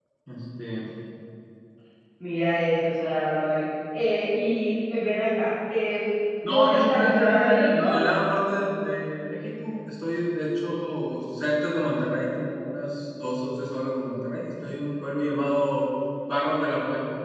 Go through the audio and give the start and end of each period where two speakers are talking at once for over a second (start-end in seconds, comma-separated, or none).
6.5-7.9